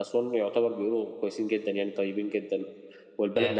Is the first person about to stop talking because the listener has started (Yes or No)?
No